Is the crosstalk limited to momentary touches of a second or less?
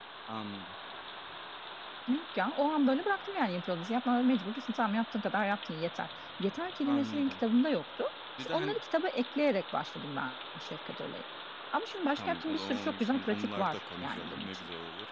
No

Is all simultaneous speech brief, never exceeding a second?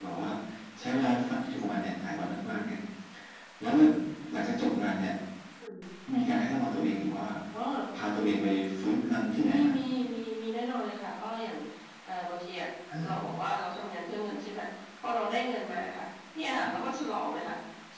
Yes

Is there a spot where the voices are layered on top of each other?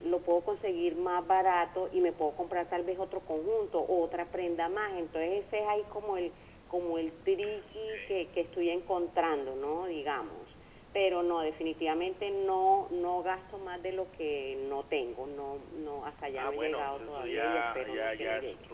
Yes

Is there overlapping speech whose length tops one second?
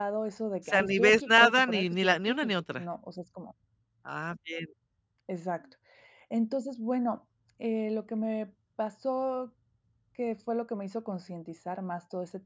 Yes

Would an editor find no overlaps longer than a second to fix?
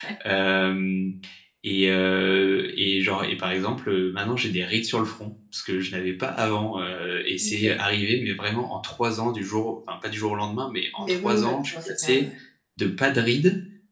No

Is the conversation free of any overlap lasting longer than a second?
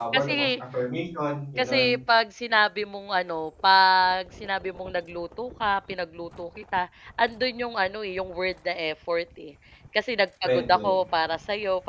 Yes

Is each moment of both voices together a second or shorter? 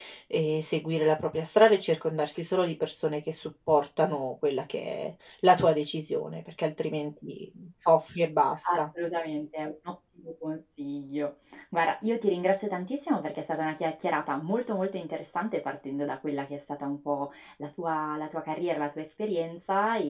Yes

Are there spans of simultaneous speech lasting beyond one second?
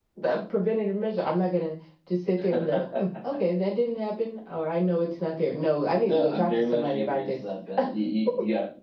Yes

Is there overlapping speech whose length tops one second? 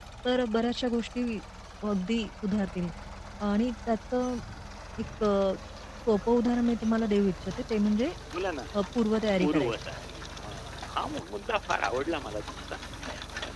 No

